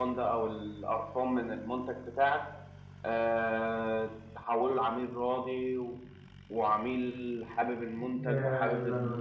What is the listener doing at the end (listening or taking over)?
listening